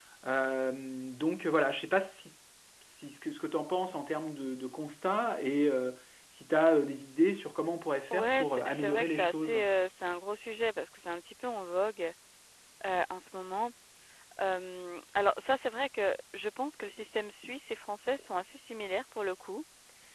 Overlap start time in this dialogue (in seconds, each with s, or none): 8.1 s